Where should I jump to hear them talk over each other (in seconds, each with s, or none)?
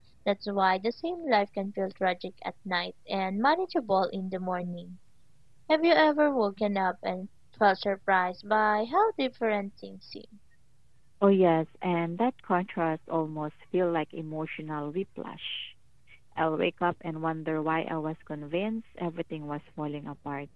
none